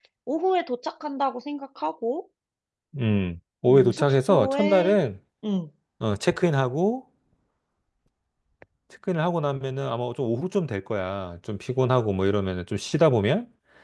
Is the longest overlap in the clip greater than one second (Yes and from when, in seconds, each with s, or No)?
Yes, from 3.7 s